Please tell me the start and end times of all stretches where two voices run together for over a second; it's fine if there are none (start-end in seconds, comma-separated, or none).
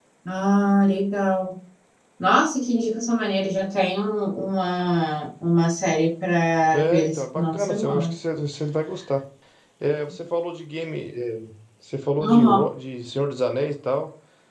6.7-8.1